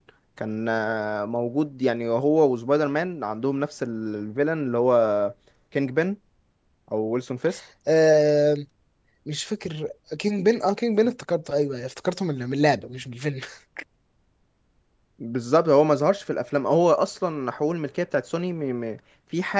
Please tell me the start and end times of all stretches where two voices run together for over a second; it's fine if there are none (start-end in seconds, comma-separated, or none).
none